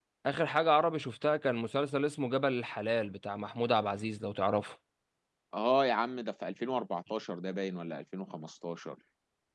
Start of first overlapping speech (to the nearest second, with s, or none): none